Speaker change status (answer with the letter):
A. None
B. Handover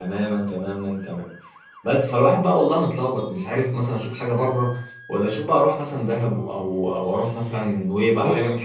B